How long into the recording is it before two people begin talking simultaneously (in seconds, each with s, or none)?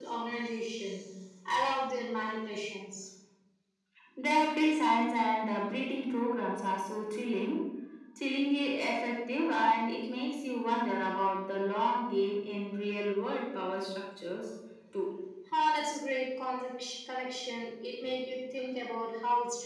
none